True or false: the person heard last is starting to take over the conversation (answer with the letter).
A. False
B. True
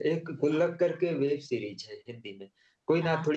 A